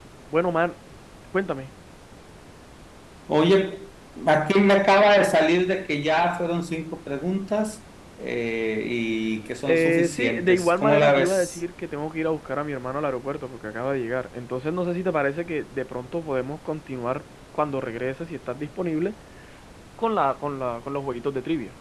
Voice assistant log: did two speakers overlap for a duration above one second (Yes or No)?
Yes